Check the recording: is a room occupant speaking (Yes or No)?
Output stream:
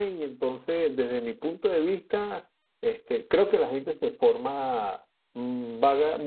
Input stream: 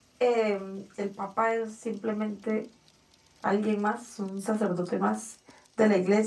Yes